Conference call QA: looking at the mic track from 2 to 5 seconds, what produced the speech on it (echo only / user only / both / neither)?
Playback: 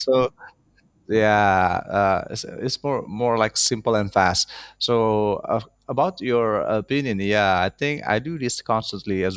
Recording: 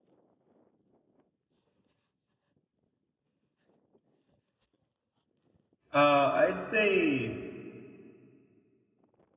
neither